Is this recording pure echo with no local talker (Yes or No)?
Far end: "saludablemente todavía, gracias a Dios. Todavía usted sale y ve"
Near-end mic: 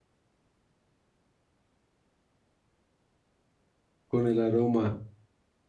No